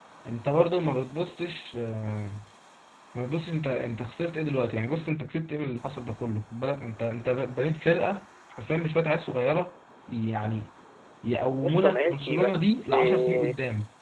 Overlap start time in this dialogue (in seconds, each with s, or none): 11.6 s